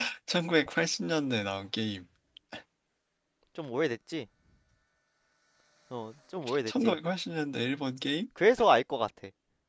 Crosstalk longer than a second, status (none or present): none